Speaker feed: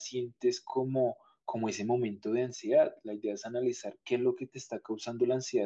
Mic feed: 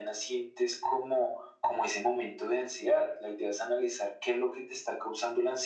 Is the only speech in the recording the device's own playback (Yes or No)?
Yes